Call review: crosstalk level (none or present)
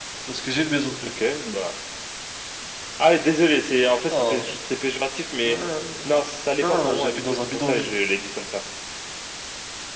present